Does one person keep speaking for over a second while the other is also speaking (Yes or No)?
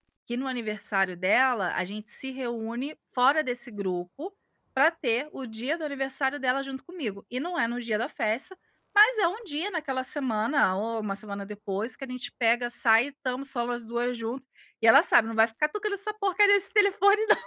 No